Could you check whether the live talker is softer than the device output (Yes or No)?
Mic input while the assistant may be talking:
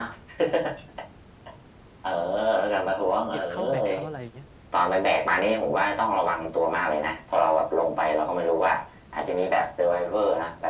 Yes